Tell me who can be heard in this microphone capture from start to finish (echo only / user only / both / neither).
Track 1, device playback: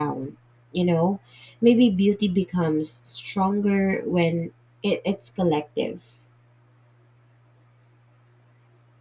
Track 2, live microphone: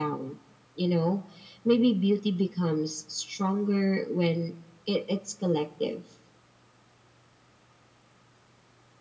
echo only